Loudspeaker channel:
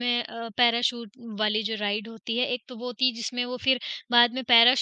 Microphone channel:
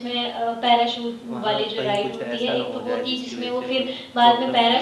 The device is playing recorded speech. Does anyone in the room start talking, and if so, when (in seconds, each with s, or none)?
1.3 s